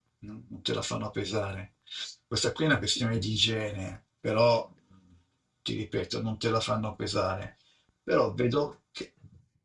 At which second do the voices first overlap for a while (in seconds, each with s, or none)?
none